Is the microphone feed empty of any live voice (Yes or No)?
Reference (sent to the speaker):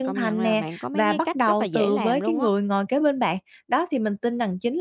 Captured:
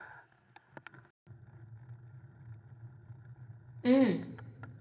No